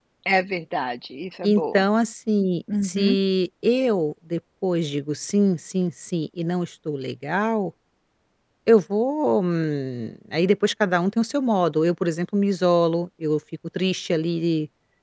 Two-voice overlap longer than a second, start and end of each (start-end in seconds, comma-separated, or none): none